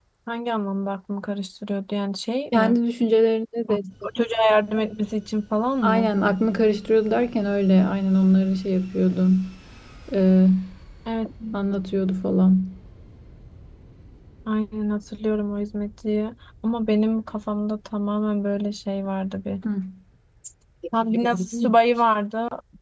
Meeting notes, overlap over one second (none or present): none